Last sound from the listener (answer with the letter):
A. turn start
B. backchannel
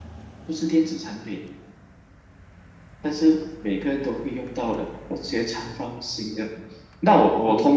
B